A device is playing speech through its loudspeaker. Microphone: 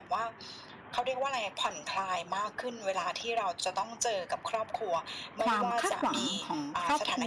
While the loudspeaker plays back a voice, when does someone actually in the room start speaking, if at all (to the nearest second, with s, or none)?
5 s